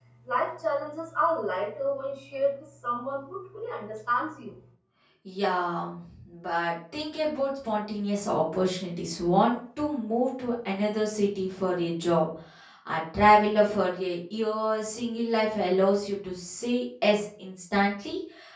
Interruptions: none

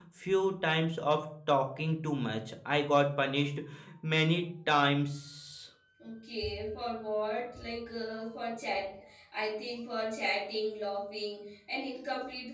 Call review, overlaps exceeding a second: none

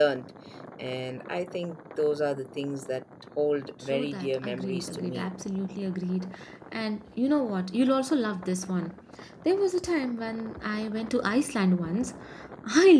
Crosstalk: present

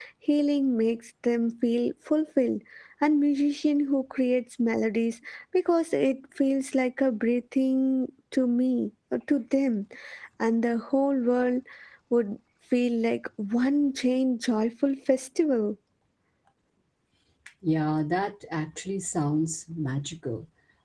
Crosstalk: none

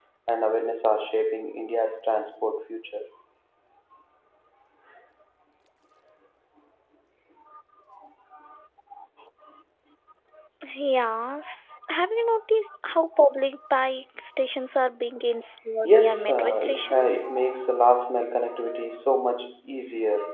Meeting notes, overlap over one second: present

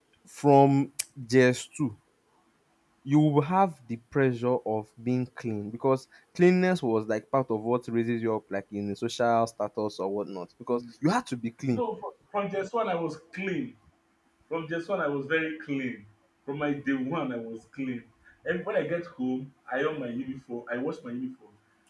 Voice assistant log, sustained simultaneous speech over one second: none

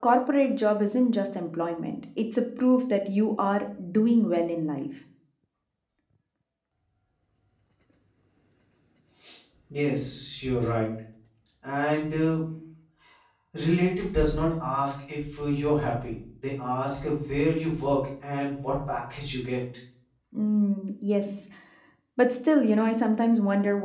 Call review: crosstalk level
none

